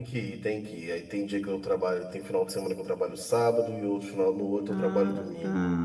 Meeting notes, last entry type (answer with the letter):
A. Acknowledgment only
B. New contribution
B